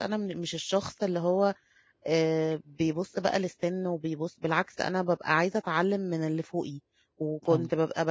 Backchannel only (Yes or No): Yes